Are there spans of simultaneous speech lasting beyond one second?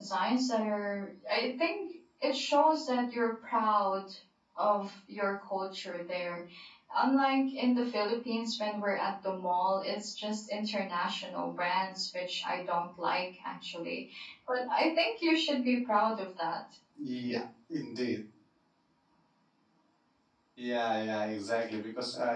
No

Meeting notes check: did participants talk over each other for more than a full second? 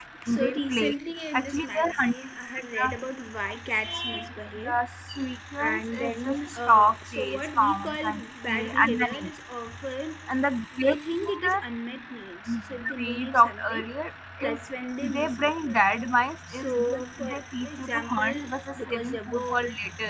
Yes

